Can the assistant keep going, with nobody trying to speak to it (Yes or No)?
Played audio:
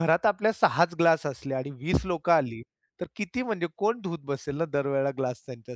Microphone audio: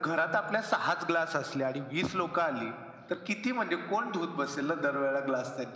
Yes